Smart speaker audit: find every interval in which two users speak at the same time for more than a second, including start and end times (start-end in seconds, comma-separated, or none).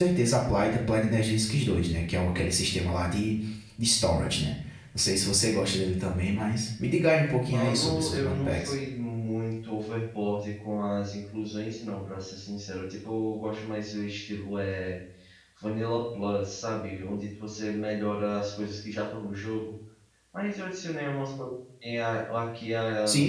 7.5-8.7